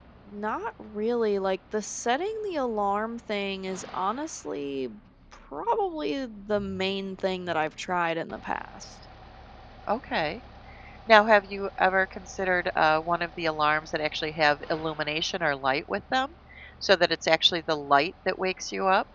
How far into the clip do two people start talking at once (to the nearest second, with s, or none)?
none